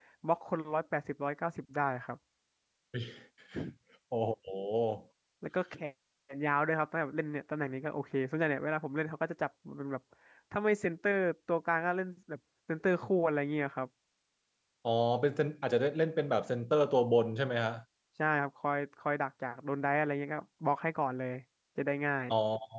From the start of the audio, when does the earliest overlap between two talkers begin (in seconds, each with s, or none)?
none